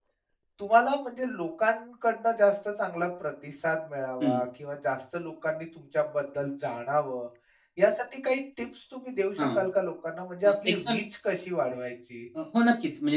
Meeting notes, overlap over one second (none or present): none